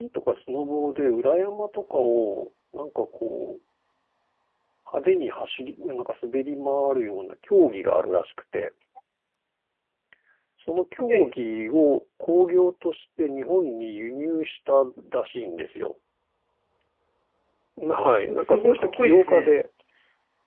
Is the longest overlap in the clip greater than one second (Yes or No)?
Yes